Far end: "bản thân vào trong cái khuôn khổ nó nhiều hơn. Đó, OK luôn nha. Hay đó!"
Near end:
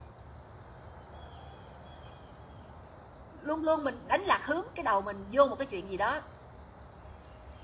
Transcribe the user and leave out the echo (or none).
luôn luôn mình đánh lạc hướng cái đầu mình vô một cái chuyện gì đó,